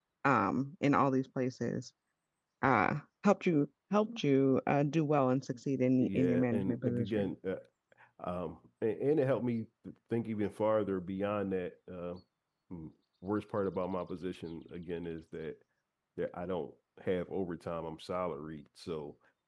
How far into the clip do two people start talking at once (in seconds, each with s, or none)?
6.0 s